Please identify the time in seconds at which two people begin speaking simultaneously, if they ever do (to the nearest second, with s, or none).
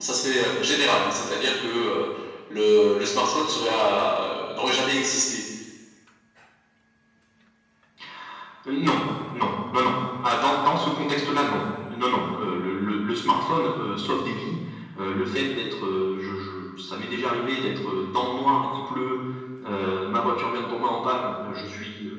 none